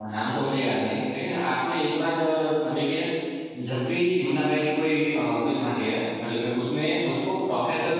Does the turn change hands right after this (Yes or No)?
No